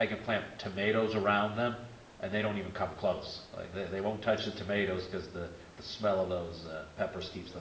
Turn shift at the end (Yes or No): Yes